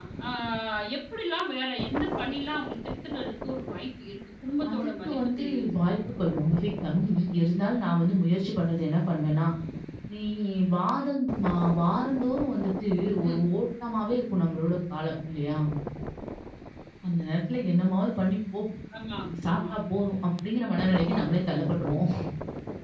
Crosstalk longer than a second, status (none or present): present